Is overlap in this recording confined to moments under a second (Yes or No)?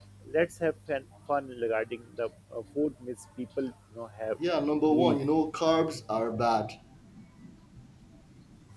Yes